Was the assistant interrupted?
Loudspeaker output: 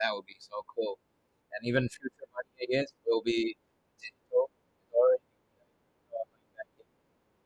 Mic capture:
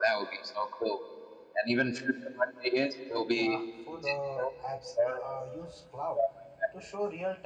Yes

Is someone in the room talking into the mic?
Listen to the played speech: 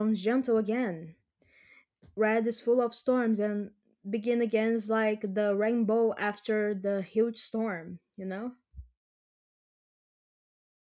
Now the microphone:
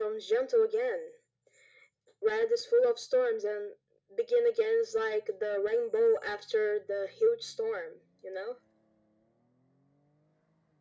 No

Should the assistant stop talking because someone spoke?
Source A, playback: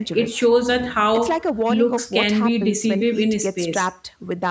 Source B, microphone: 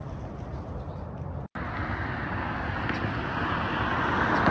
No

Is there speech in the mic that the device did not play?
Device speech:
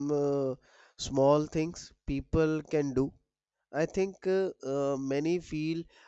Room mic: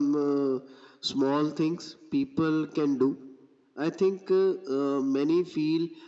No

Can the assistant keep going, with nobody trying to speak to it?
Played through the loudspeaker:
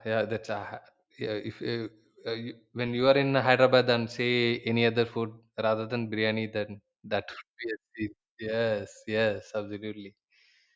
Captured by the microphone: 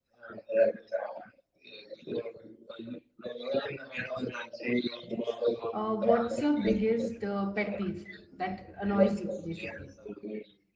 No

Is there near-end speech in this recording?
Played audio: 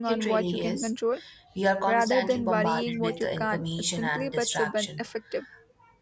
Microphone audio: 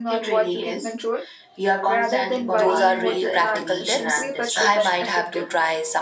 Yes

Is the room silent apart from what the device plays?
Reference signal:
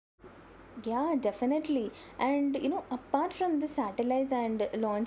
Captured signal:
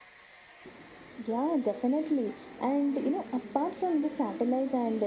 No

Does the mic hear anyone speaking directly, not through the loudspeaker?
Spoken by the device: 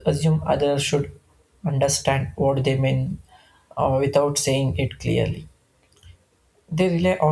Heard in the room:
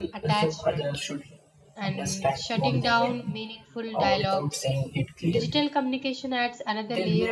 Yes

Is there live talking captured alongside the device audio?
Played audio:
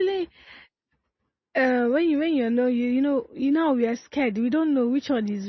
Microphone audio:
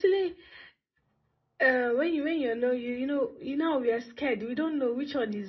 No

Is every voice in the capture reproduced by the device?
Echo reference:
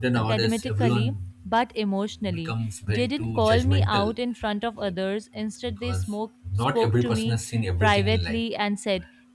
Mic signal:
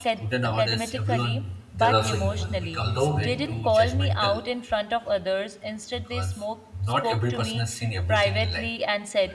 No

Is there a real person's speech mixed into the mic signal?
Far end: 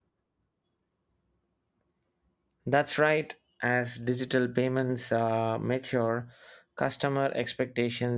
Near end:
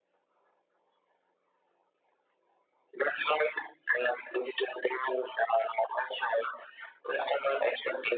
No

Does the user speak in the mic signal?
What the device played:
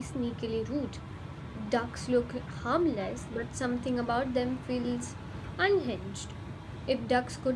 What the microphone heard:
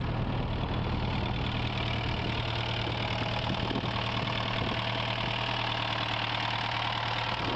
No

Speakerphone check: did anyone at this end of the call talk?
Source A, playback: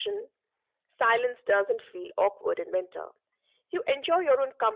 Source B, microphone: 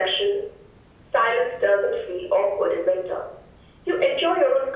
No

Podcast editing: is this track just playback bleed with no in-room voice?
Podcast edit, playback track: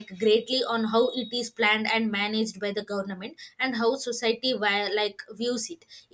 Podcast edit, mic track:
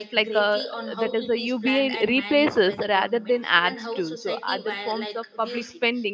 No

